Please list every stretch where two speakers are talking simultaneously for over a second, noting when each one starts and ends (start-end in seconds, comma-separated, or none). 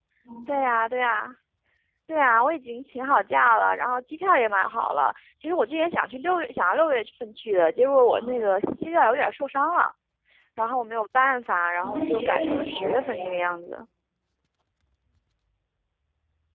11.8-13.3